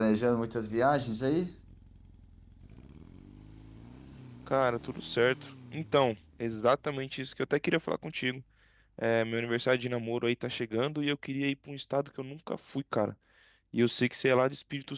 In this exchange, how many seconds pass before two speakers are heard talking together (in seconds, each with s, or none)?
none